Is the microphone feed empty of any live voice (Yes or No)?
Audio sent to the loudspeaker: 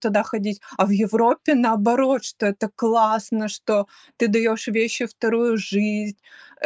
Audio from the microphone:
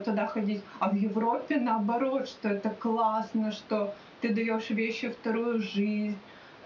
Yes